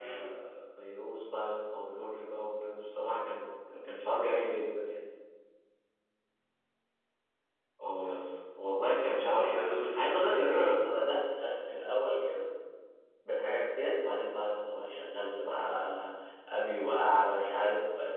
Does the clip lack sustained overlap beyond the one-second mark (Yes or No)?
No